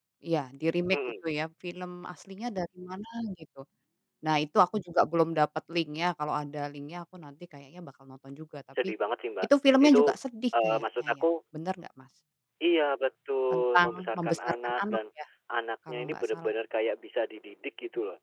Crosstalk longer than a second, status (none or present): present